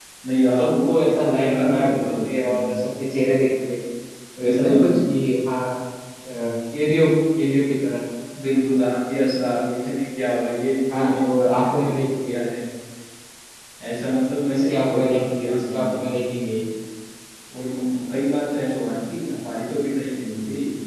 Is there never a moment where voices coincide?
No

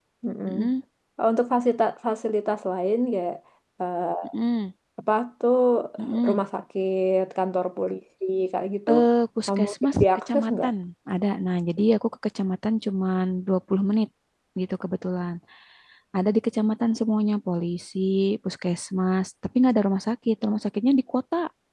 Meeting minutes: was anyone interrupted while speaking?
Yes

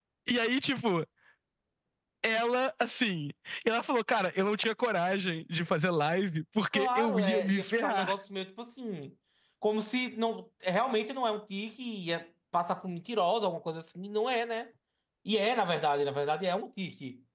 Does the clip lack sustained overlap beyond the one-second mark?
No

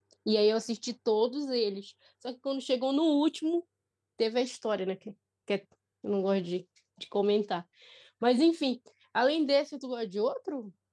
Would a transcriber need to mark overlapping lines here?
No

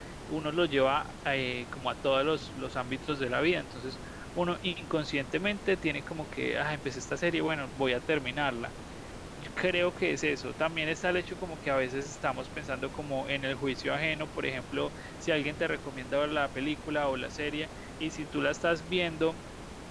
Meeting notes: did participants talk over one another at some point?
No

